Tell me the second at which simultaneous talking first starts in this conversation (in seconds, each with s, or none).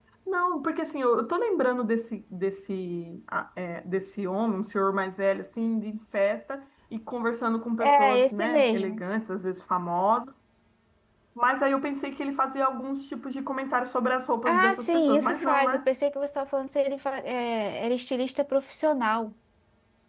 7.8 s